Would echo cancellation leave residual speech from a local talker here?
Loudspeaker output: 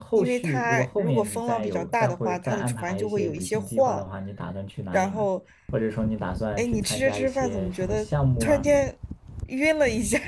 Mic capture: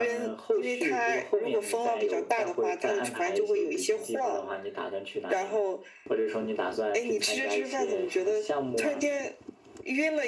No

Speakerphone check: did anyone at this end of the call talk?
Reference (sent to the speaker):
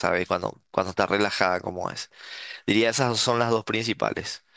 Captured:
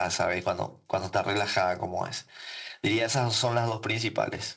No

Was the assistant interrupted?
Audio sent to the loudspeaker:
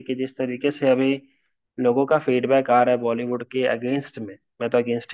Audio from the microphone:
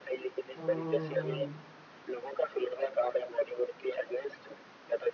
Yes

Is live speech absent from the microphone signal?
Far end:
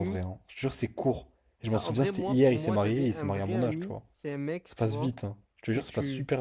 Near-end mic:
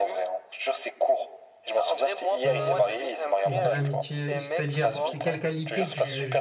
No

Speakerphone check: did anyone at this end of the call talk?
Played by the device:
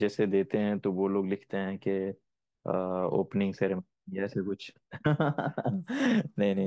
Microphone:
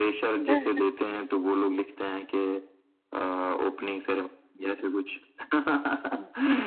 Yes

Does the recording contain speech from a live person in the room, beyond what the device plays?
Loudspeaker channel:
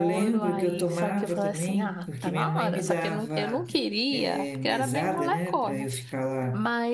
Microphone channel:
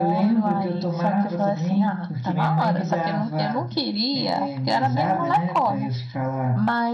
No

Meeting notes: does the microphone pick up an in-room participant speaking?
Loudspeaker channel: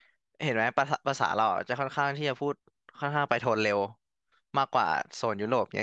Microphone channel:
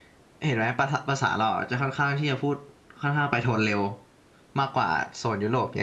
No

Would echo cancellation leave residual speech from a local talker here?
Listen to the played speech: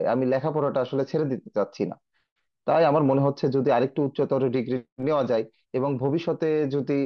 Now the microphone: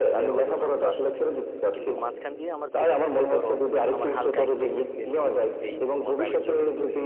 Yes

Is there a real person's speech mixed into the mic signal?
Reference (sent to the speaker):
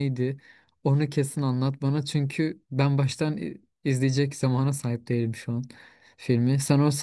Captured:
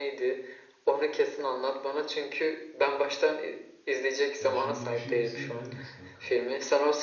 Yes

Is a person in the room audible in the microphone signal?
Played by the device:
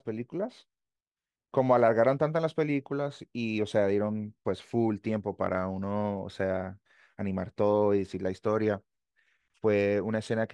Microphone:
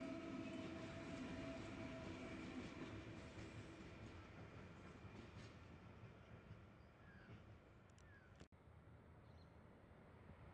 No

